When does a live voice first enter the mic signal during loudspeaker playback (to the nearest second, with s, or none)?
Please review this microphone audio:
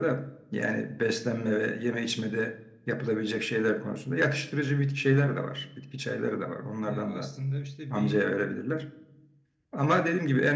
7 s